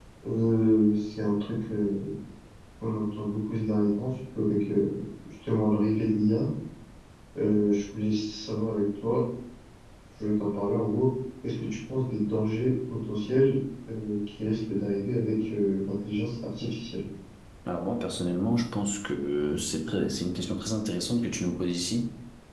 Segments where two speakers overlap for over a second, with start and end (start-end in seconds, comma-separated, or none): none